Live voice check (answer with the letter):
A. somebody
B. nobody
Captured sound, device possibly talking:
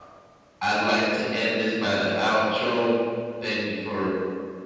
A